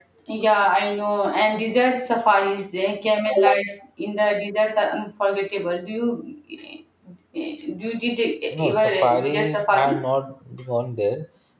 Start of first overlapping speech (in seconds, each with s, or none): 8.7 s